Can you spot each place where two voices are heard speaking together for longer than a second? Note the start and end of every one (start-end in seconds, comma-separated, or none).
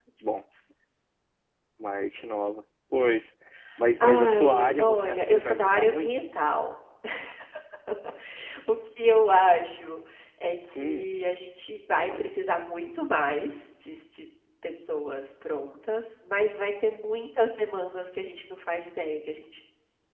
4.0-6.1